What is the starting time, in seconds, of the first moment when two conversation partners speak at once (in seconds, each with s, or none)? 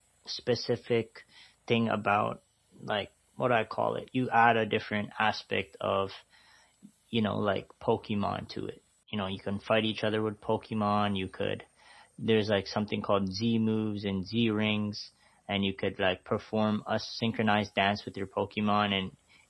none